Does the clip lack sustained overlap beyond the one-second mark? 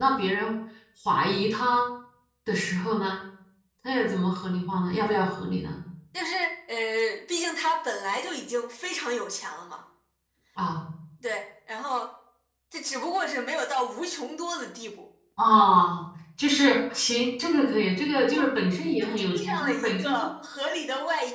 No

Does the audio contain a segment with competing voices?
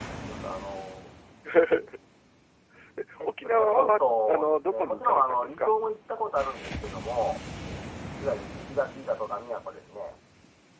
Yes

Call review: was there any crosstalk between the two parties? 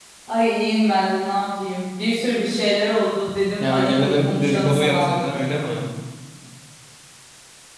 Yes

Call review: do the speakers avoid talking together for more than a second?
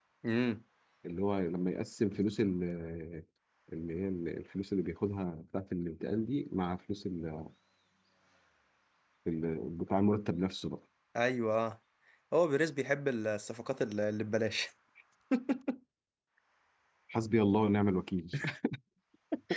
Yes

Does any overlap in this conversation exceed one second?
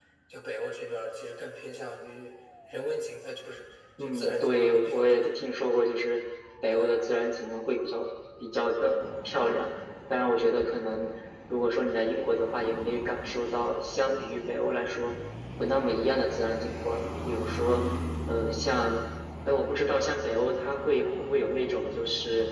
Yes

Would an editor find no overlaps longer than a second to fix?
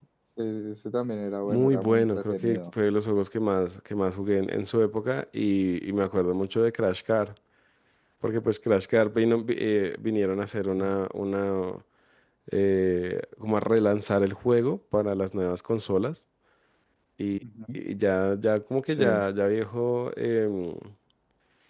No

